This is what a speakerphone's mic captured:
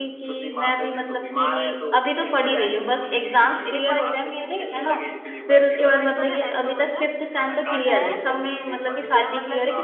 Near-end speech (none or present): present